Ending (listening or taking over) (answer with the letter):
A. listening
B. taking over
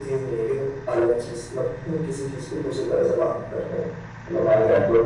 B